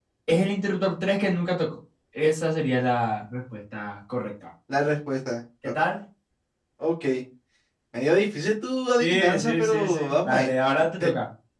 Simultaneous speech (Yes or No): Yes